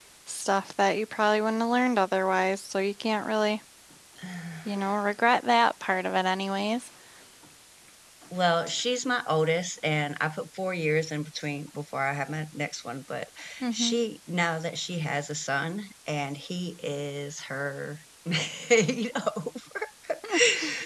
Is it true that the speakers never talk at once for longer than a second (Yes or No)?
Yes